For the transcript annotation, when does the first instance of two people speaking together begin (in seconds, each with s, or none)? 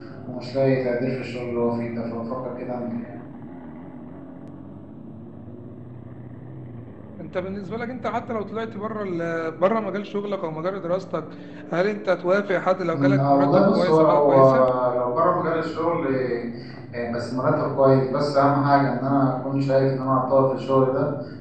12.9 s